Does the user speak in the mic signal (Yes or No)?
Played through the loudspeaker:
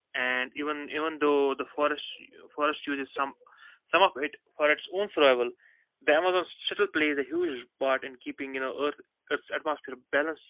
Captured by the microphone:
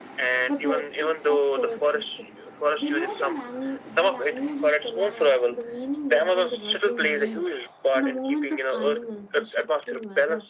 Yes